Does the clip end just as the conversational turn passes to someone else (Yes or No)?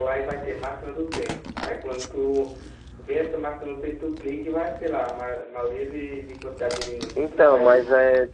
Yes